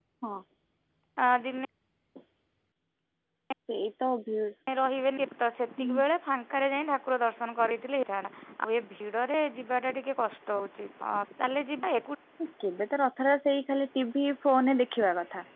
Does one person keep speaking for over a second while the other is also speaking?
No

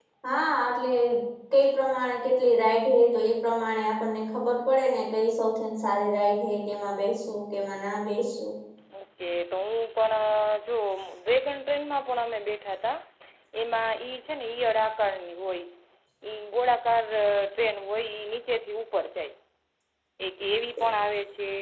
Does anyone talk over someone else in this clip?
No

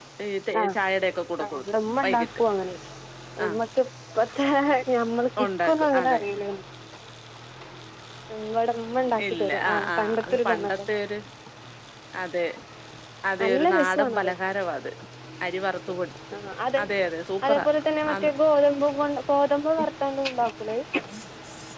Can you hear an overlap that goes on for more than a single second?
Yes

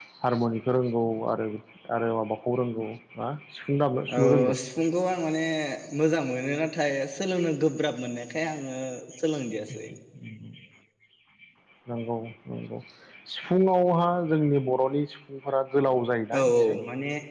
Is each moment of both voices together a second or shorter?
Yes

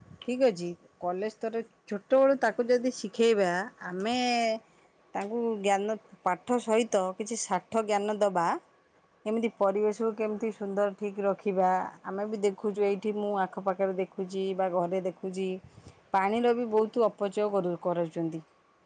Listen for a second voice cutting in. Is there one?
No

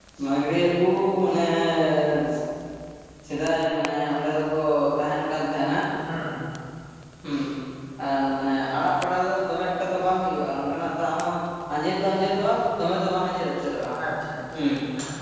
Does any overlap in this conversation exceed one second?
No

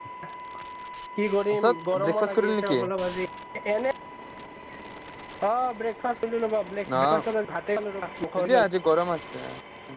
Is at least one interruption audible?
Yes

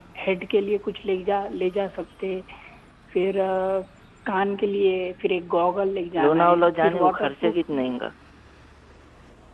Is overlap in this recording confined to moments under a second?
No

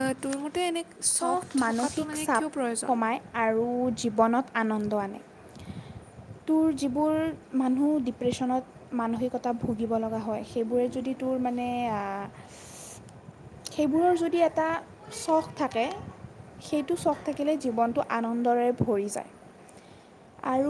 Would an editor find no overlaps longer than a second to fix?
No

